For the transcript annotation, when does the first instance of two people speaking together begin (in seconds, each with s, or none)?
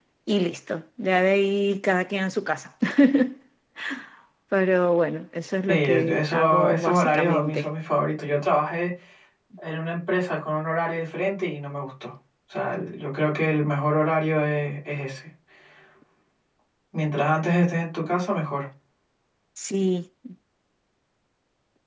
5.7 s